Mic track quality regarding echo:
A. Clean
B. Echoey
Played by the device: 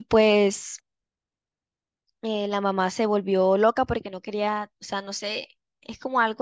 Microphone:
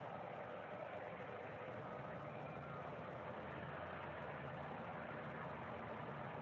A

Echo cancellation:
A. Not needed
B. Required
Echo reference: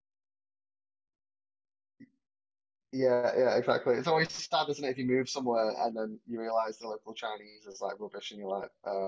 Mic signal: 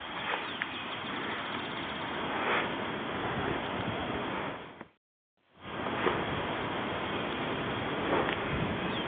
A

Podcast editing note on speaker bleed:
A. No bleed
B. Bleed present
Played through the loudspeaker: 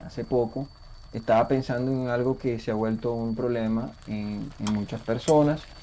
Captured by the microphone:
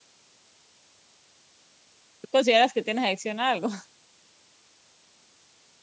A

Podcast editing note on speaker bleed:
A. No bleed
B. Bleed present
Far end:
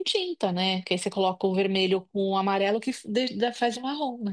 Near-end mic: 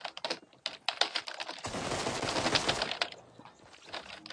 A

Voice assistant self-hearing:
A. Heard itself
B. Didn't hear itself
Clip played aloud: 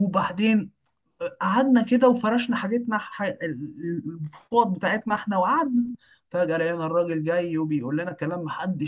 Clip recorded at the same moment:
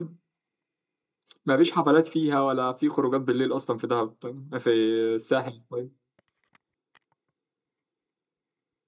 B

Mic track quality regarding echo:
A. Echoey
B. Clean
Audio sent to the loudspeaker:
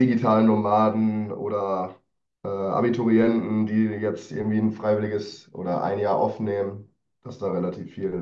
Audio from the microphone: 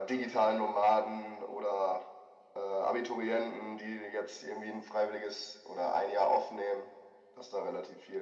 A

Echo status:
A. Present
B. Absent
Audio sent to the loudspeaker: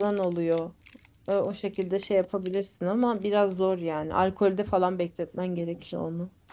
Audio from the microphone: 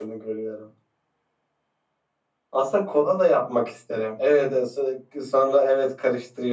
B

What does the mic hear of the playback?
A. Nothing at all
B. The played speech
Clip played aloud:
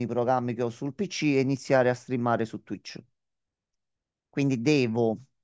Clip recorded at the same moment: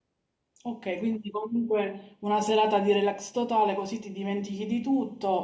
A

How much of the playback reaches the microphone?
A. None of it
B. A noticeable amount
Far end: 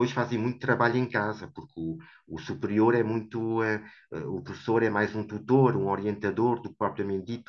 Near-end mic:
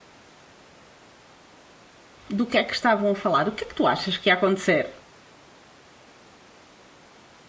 A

